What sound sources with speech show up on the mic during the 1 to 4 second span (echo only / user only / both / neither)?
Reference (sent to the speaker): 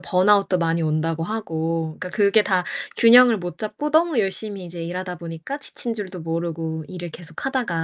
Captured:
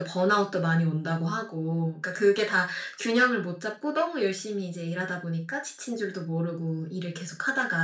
echo only